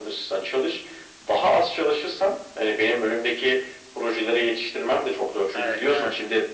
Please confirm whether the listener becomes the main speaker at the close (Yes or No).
No